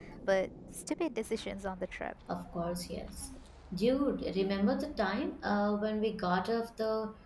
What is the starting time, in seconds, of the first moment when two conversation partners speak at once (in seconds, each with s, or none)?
none